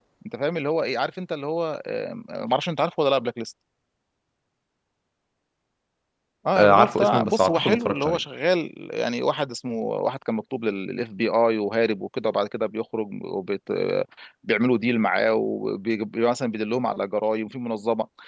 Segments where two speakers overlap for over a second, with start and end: 6.6-8.2

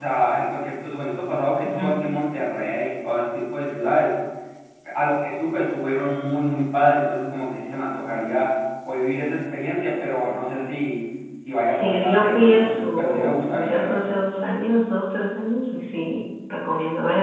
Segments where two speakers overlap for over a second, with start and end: 11.7-14.2

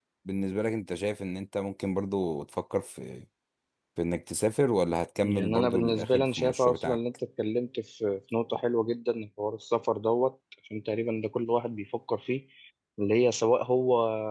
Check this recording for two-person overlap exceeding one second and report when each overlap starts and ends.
5.2-7.0

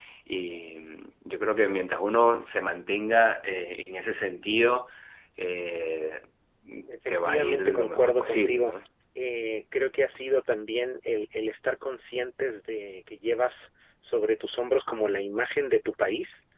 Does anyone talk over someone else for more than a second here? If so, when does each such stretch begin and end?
7.1-8.7

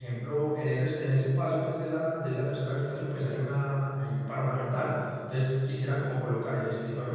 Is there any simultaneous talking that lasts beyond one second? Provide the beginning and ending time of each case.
none

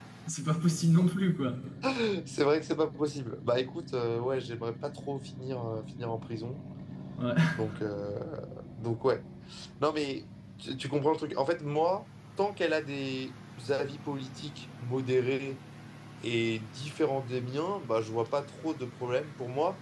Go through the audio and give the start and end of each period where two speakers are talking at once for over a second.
none

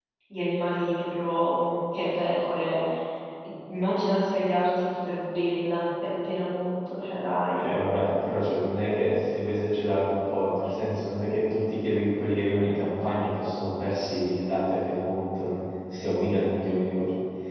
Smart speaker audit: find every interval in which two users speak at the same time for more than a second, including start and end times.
none

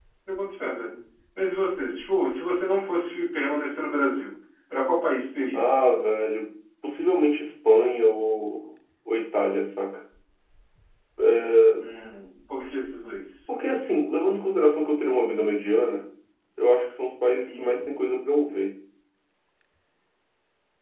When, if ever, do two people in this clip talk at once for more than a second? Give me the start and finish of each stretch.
none

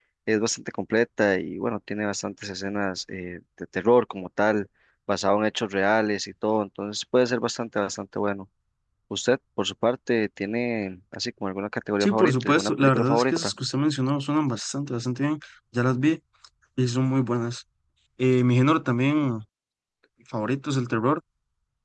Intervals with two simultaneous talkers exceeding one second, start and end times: 12.0-13.5

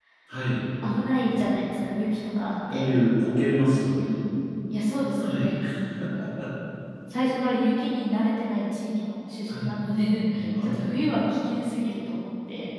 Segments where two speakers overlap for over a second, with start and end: none

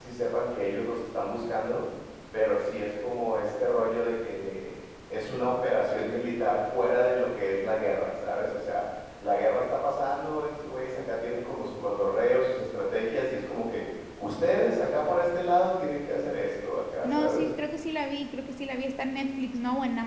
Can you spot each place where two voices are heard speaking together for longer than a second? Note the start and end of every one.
none

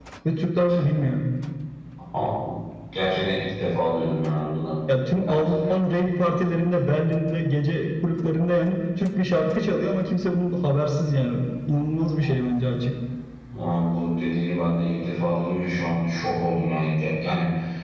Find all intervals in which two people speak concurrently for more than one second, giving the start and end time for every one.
none

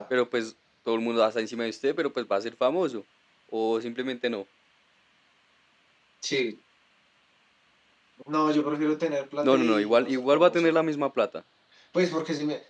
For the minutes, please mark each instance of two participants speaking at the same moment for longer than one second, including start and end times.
9.4-10.7

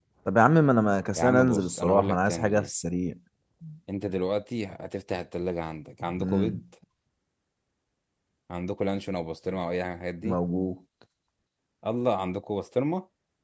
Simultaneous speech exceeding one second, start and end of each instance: 1.2-2.7

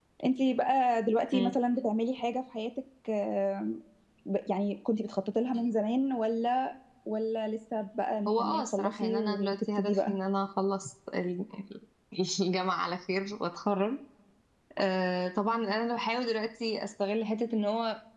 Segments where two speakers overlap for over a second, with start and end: 8.3-10.1

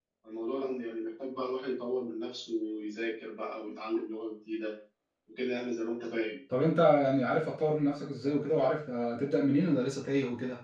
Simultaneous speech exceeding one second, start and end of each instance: none

